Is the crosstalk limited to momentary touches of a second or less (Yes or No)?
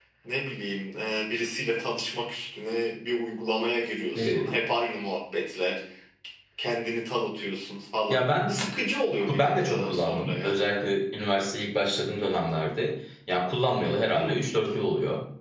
No